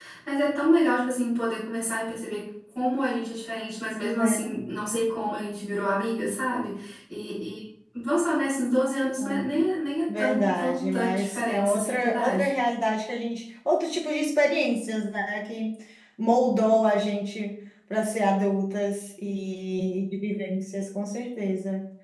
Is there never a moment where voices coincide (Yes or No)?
No